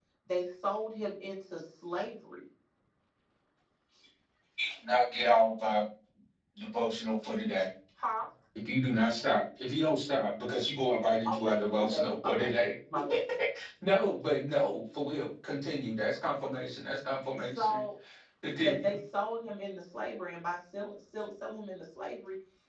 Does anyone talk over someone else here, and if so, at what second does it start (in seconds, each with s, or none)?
11.3 s